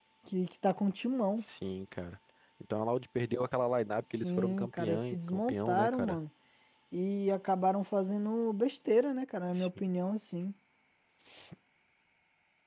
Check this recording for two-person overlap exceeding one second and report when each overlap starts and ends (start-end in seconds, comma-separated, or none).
4.2-6.2